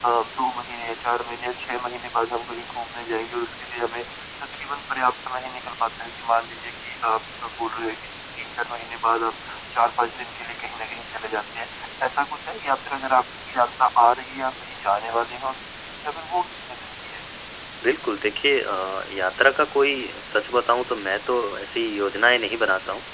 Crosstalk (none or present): none